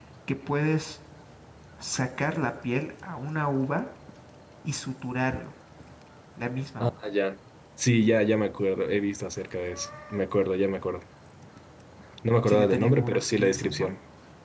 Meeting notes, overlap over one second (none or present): present